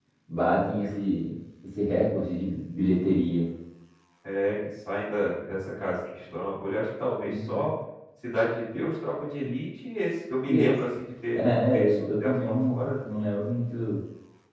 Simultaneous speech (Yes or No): Yes